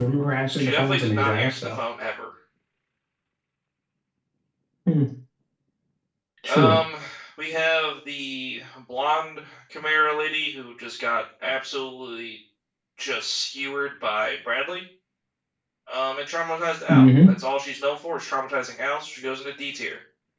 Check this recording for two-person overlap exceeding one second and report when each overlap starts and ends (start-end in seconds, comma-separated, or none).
0.6-1.8